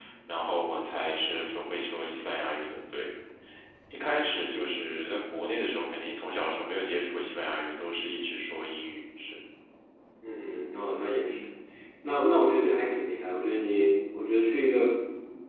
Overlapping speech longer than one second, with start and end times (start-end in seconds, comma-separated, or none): none